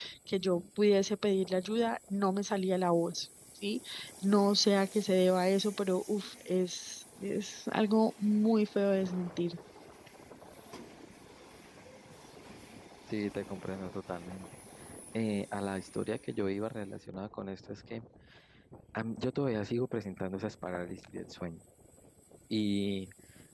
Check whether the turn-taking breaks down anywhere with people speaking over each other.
No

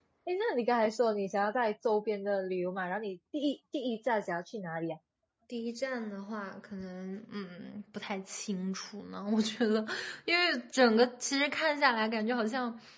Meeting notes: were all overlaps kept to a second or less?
Yes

